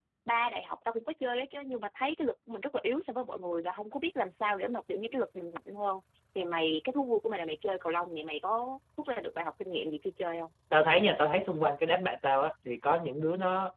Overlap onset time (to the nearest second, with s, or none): none